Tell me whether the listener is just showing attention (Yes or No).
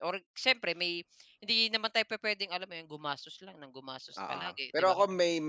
No